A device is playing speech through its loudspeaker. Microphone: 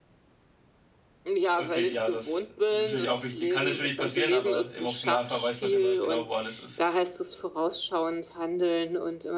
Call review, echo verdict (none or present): present